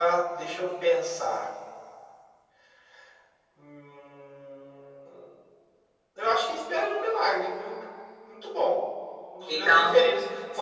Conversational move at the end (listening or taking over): listening